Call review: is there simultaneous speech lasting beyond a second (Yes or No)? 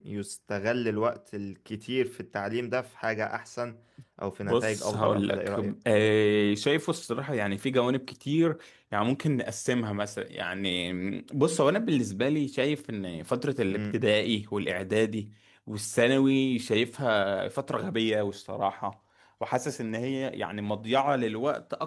Yes